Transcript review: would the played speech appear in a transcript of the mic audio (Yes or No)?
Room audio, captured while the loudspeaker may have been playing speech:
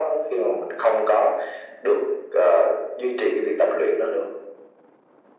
Yes